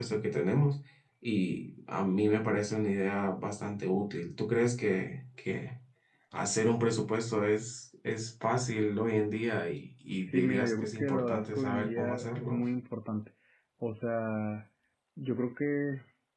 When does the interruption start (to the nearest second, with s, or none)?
10 s